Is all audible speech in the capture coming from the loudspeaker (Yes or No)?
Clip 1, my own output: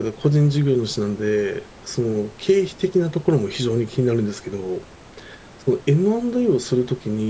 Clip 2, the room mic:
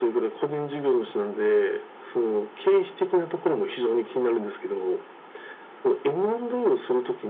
Yes